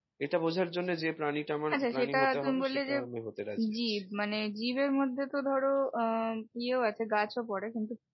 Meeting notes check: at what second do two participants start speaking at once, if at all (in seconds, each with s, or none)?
1.7 s